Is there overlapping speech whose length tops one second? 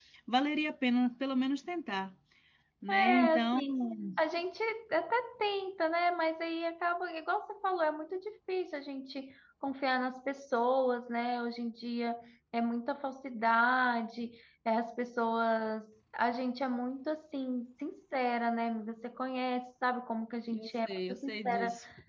Yes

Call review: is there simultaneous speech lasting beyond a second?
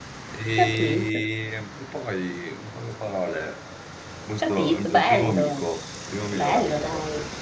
Yes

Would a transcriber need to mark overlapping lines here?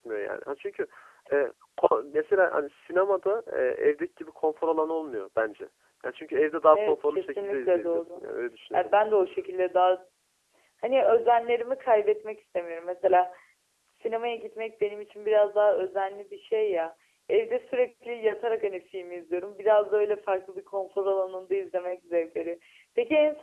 Yes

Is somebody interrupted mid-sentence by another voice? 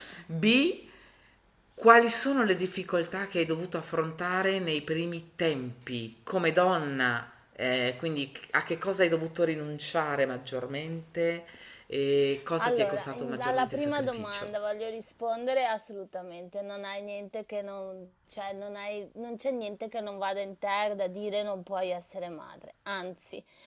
Yes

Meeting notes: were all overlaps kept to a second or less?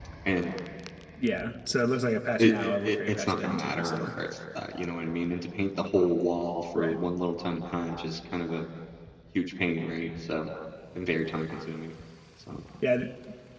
No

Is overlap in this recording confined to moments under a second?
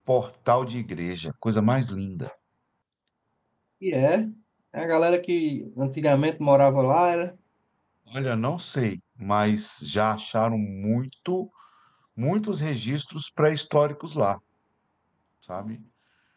Yes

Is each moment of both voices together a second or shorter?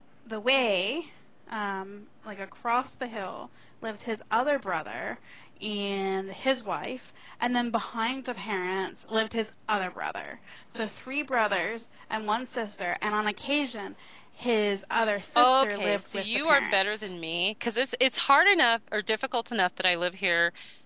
No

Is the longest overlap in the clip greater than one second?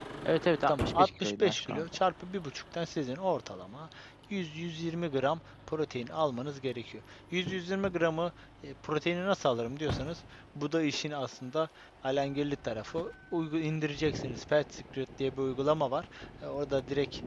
Yes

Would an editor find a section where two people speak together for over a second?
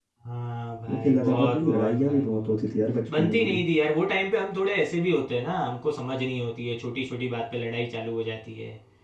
Yes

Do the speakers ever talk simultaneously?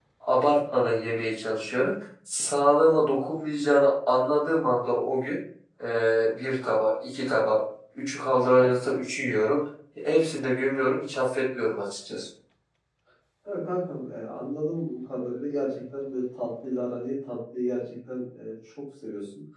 No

